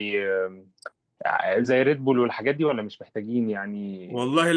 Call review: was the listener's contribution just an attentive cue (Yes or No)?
No